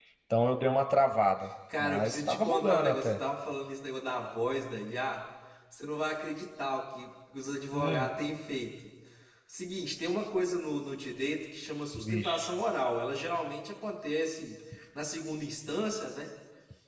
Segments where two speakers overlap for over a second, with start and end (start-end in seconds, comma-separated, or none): 1.8-3.1